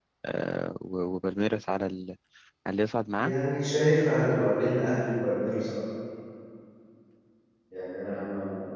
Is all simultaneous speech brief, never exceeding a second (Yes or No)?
Yes